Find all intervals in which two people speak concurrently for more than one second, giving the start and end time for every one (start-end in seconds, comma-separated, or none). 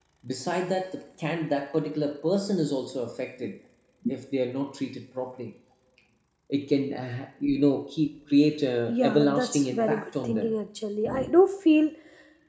8.9-10.5